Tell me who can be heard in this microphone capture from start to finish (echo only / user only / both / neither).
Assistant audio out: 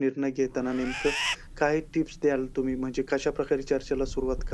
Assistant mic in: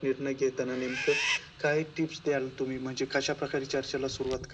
echo only